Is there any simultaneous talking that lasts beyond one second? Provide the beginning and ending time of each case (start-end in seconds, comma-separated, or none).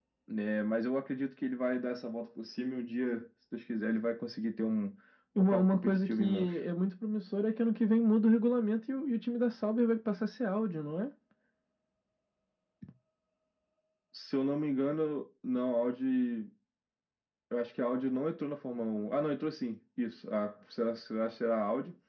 5.4-6.6